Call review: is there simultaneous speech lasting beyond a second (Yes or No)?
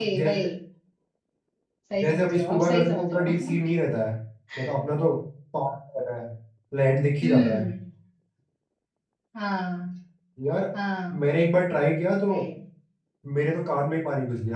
Yes